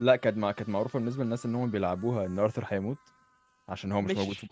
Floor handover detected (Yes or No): Yes